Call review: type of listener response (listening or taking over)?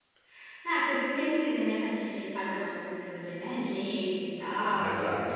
taking over